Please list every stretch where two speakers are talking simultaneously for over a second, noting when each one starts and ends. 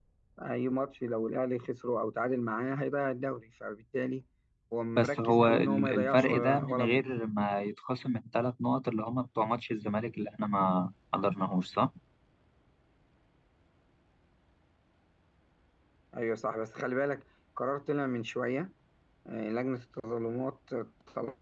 5.0-7.1

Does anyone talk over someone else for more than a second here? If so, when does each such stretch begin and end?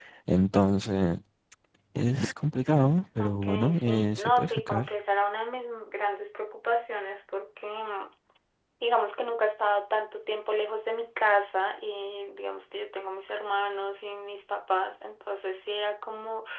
3.2-4.9

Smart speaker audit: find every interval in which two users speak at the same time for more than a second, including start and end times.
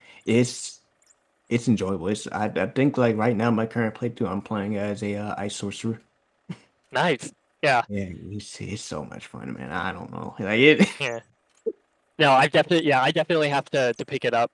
none

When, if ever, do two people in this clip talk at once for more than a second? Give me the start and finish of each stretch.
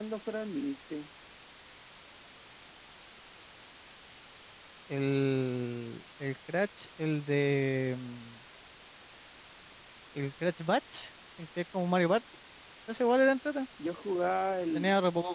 none

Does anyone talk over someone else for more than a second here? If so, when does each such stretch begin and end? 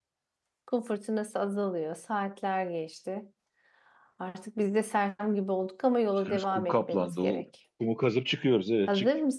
6.2-7.4

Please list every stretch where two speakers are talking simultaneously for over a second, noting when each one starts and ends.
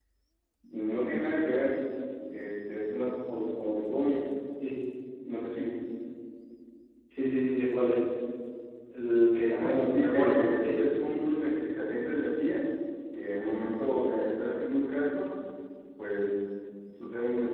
9.5-10.8

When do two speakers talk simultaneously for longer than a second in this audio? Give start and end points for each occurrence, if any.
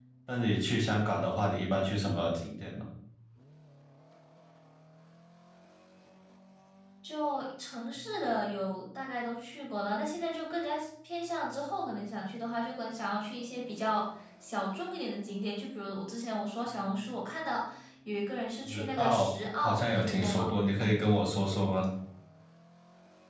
18.7-20.6

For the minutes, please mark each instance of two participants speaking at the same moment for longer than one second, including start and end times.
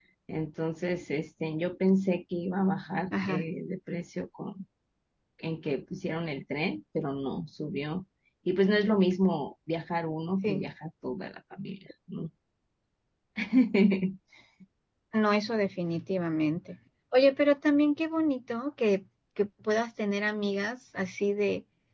none

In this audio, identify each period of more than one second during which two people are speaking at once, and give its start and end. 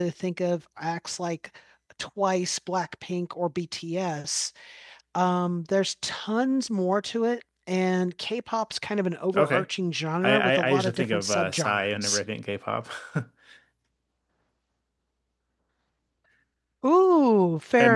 10.2-12.2

